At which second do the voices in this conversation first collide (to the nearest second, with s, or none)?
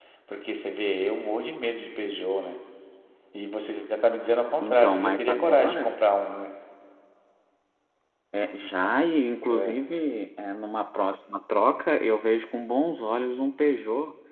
5 s